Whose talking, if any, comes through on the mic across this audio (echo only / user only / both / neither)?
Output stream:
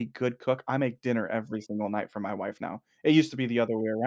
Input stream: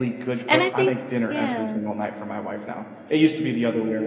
both